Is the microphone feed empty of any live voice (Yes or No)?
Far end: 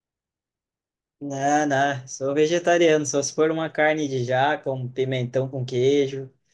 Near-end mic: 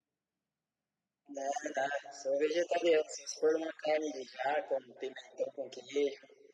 Yes